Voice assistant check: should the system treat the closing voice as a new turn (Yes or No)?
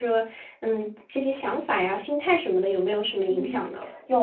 Yes